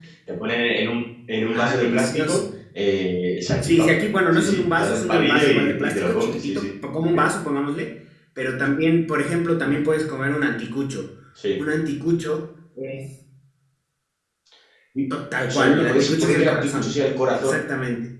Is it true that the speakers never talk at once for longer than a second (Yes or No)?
No